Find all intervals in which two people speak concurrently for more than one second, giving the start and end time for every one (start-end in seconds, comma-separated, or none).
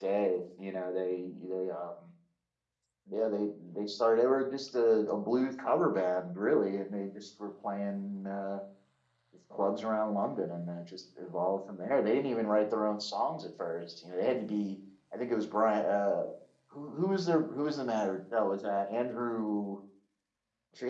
none